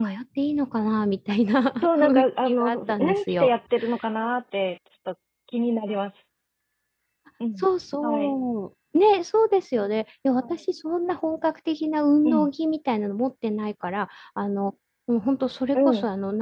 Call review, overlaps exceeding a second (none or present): present